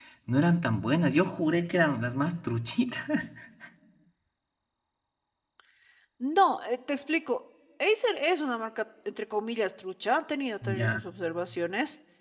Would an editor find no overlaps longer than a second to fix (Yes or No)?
Yes